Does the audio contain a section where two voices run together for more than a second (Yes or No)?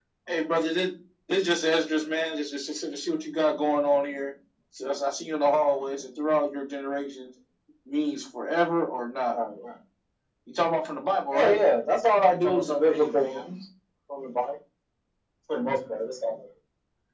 Yes